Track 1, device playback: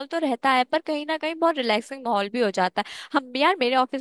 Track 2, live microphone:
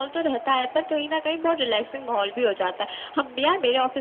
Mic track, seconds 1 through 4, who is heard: echo only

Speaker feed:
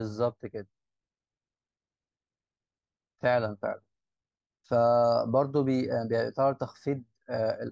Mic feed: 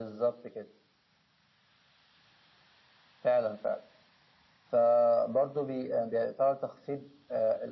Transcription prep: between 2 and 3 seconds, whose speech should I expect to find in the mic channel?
neither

